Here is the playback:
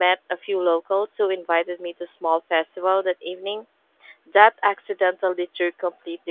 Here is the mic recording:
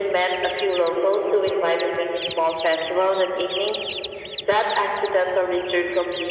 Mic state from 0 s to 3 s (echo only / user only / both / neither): echo only